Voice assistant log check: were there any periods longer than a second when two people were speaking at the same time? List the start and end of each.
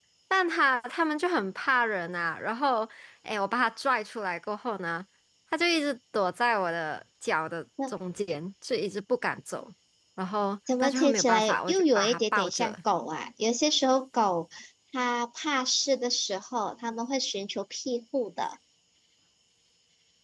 10.8-12.7

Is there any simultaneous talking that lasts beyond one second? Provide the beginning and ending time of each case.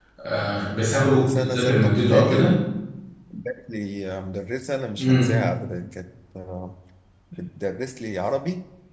1.2-2.5

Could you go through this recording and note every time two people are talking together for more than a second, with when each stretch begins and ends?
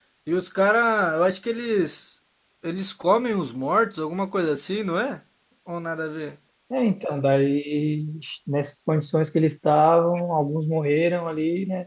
none

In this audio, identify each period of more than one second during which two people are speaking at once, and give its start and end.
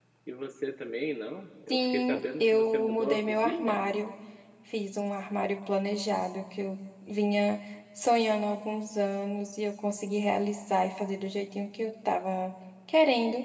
1.7-3.9

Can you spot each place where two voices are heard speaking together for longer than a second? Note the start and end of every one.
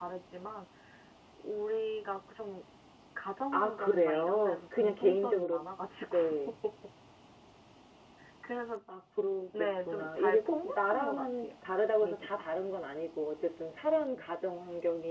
3.5-5.6, 9.6-11.5

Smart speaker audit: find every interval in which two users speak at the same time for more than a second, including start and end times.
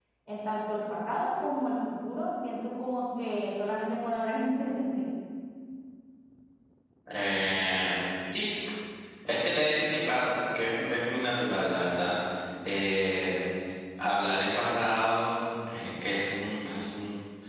none

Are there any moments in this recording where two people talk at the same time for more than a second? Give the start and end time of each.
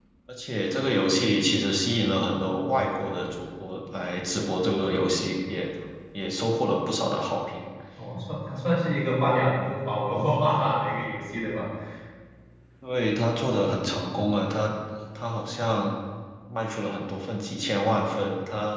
none

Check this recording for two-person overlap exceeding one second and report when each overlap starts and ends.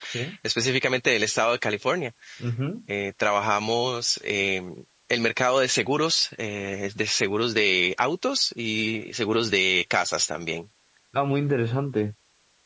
none

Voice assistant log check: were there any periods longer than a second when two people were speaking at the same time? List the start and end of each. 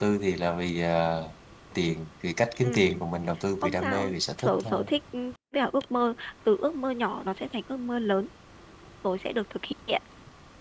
3.6-4.9

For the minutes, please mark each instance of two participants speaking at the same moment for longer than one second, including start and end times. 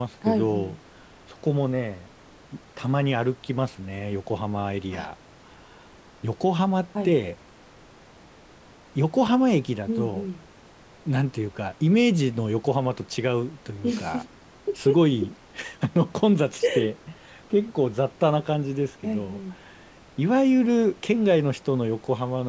none

